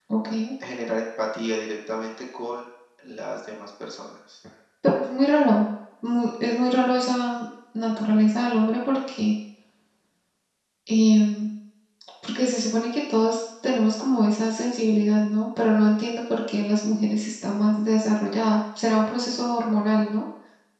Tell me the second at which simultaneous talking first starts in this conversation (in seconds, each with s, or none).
none